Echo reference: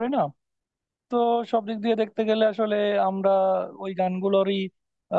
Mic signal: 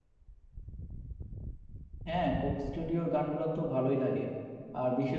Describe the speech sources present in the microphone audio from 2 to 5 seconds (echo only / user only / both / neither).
user only